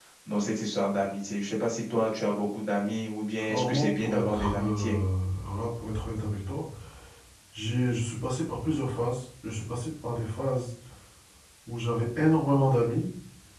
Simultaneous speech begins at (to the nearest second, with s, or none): 3 s